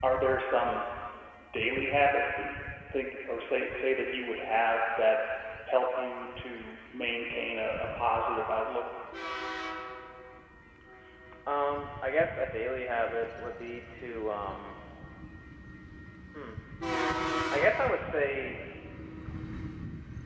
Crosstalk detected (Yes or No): No